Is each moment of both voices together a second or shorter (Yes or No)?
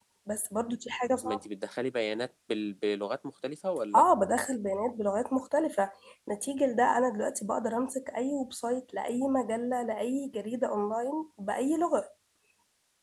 Yes